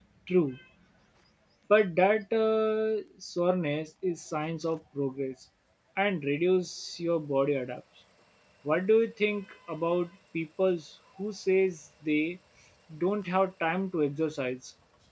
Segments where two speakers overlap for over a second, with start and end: none

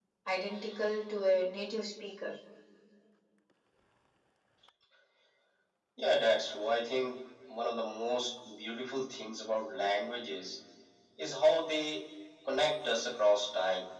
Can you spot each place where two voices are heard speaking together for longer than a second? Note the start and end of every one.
none

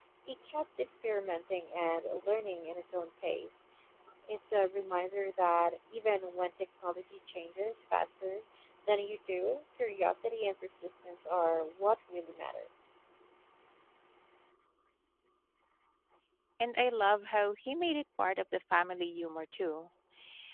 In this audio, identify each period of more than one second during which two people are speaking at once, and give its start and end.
none

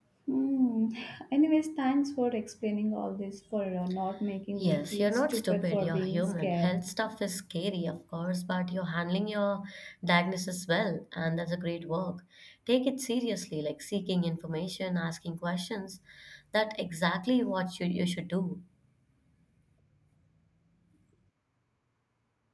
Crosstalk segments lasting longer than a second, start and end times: 4.6-6.7

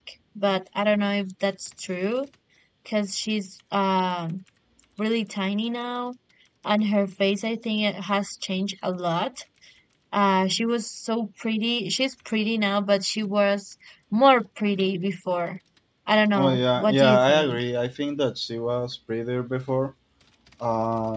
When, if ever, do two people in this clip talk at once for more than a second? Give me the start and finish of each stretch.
16.4-17.6

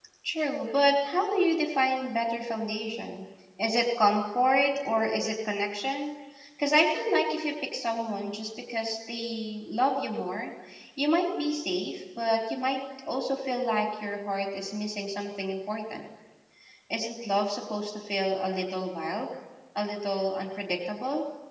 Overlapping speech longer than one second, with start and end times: none

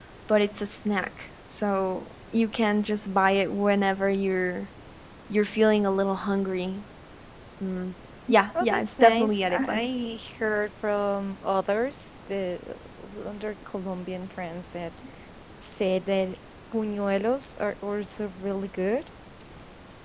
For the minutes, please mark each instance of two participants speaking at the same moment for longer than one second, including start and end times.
8.6-9.9

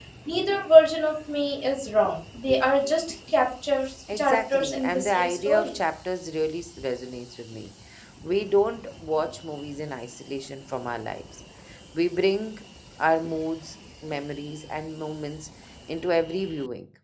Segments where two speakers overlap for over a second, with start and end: 4.2-5.8

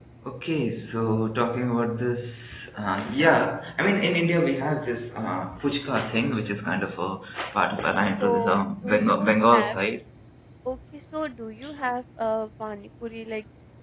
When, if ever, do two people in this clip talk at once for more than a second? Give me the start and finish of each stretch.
8.2-9.8

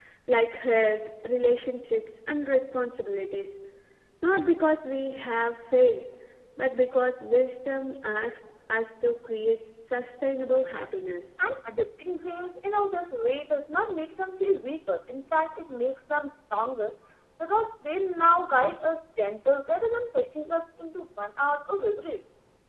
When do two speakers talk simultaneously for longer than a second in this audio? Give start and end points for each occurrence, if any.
none

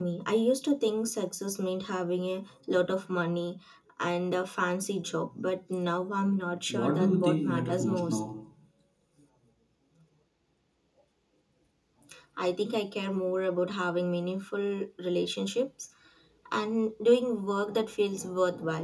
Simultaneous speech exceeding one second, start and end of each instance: 6.7-8.2

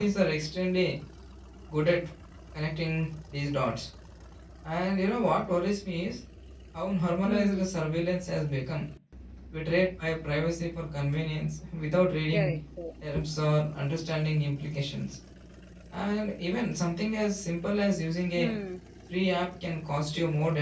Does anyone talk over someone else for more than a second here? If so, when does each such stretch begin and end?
none

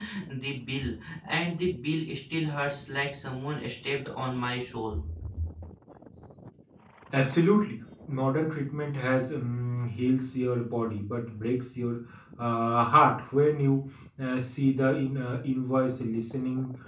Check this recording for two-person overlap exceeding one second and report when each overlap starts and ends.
none

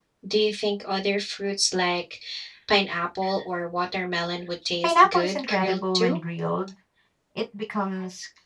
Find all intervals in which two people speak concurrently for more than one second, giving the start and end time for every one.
4.8-6.2

